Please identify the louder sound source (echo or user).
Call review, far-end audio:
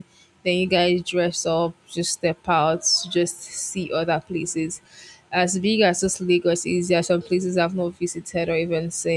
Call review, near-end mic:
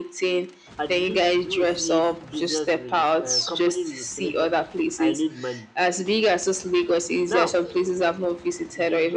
echo